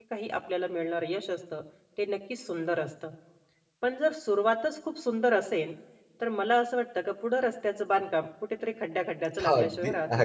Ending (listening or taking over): taking over